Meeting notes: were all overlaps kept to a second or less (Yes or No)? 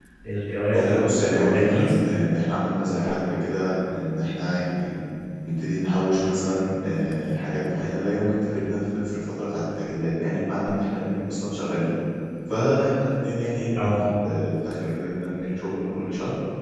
No